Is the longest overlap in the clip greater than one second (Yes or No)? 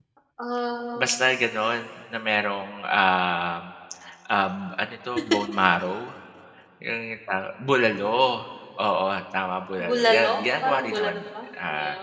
Yes